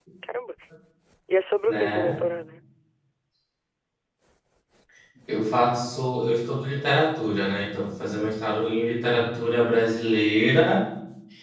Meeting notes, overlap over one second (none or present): none